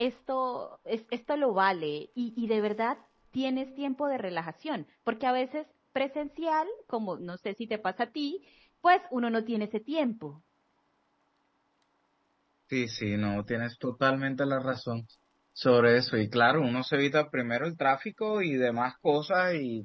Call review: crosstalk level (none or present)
none